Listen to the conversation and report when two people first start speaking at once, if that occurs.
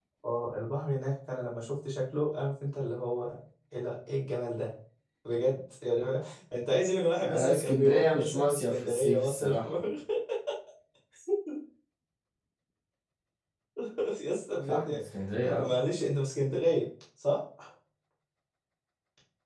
7.2 s

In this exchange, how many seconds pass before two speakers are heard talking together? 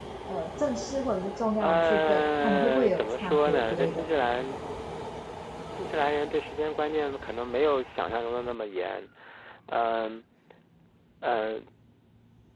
1.6 s

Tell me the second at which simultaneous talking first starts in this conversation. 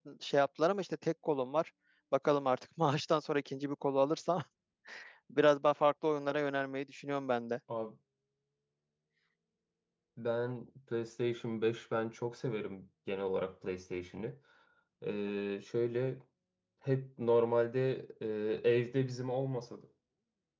none

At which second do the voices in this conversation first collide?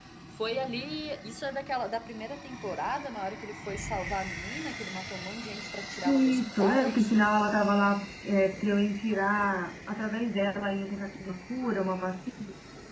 6.0 s

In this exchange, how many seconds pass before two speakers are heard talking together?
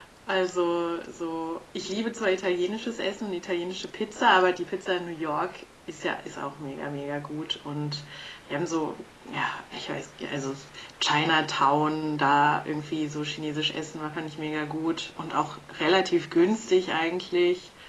none

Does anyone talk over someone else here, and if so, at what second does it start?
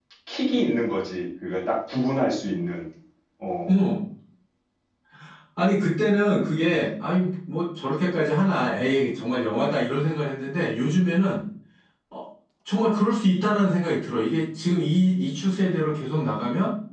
none

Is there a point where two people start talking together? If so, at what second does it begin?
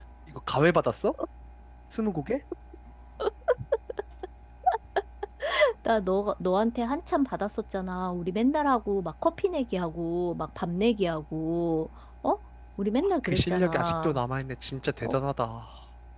13.0 s

